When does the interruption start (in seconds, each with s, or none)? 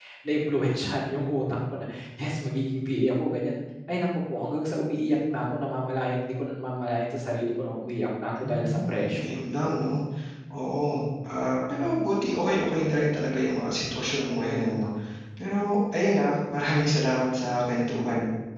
8.4 s